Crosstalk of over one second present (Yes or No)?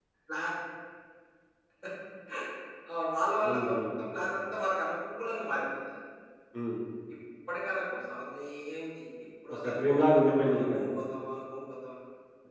Yes